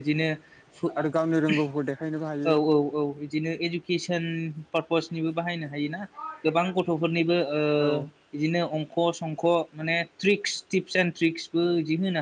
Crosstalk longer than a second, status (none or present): none